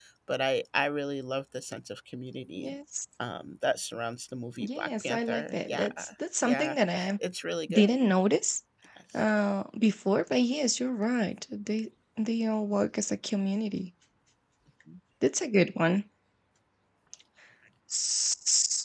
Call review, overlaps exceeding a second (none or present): present